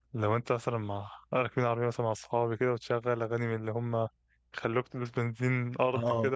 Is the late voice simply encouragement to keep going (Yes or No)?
Yes